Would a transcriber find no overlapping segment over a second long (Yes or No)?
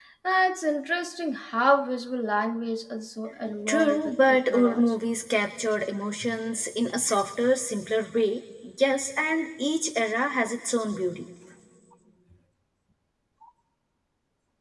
No